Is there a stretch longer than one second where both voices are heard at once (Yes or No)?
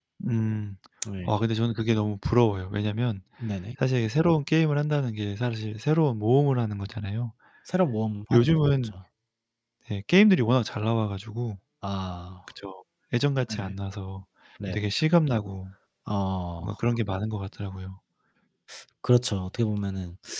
No